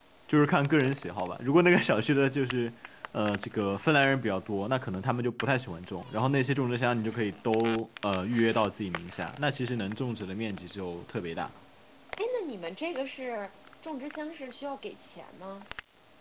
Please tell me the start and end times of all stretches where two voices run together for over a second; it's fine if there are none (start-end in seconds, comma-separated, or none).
none